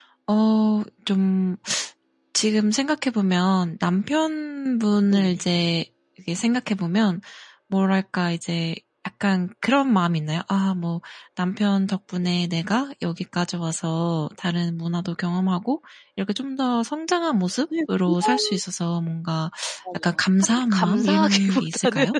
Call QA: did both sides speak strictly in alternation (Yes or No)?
No